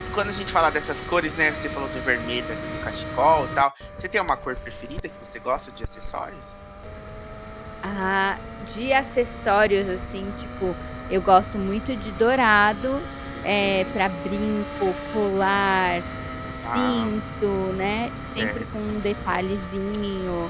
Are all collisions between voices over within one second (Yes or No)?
Yes